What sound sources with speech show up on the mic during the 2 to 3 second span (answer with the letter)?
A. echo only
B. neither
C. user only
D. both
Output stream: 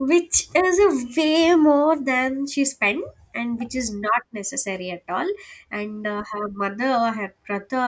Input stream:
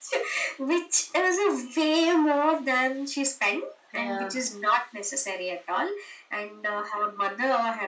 A